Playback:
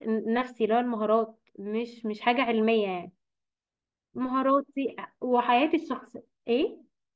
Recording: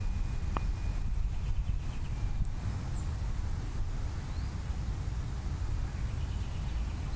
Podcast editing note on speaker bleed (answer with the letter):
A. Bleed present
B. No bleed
B